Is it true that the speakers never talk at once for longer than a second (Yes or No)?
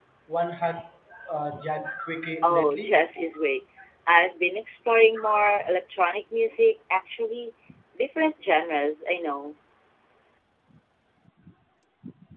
Yes